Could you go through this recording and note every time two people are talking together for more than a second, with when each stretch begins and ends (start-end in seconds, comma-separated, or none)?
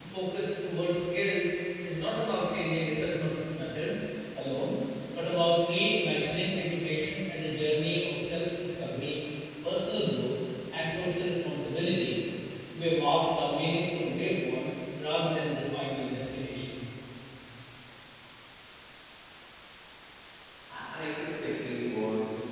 none